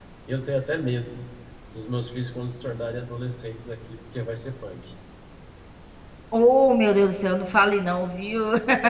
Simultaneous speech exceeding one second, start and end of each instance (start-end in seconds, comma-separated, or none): none